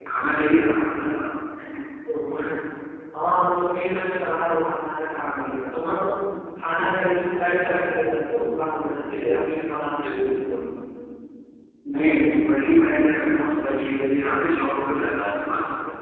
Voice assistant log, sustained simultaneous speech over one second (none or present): none